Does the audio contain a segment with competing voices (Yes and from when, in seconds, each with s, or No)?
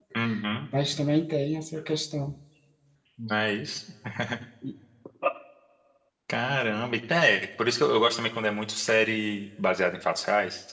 No